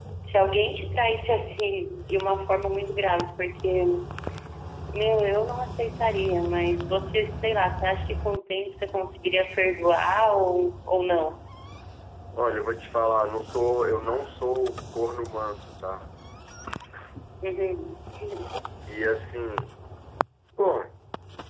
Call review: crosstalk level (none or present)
none